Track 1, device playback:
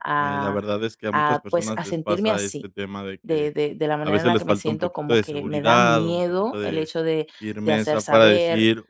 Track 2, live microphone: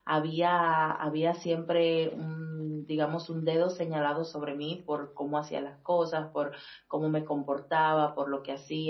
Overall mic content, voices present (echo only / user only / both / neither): user only